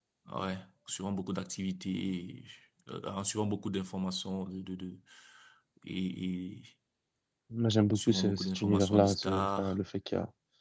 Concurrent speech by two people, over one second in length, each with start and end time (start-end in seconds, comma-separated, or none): 7.9-9.8